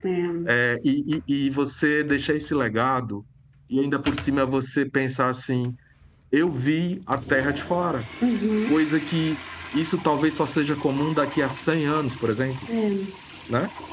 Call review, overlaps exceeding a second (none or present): none